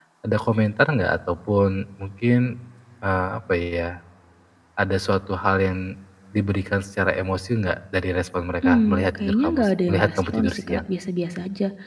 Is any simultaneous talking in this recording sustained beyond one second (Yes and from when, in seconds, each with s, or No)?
Yes, from 8.6 s